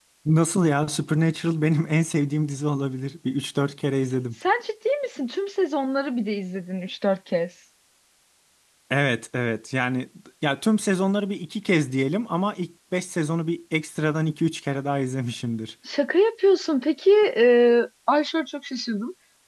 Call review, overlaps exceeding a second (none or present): none